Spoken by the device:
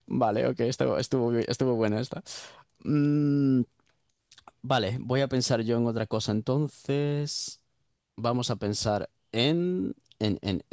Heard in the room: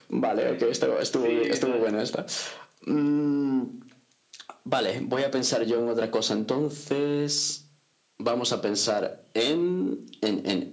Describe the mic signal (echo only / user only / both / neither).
both